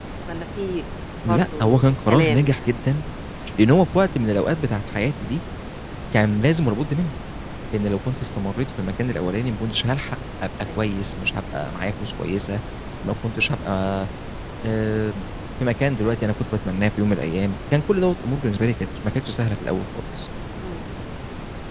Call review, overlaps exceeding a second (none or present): present